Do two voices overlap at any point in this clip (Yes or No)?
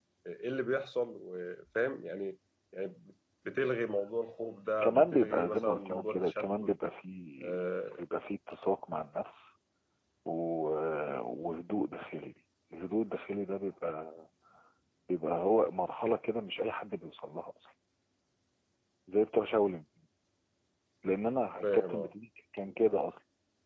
Yes